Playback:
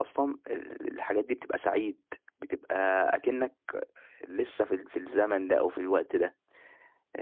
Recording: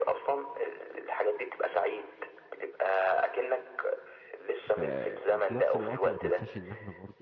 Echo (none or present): present